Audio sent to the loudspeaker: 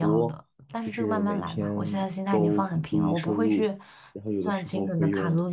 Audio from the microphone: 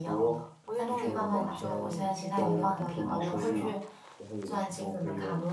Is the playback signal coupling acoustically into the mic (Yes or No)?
Yes